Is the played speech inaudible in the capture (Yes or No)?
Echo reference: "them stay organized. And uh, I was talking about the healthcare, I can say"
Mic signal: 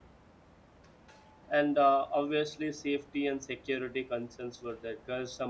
Yes